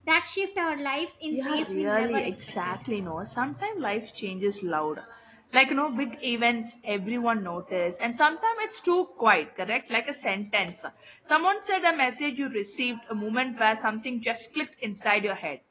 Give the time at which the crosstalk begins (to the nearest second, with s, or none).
1 s